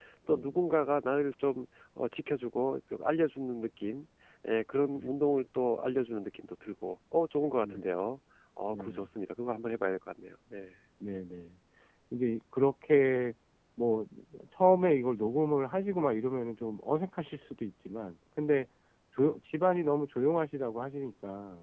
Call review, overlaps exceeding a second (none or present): none